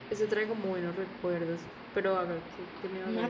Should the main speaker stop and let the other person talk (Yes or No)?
Yes